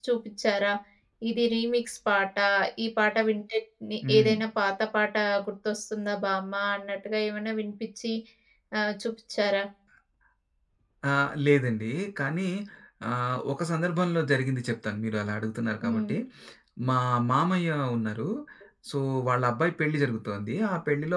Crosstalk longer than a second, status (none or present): none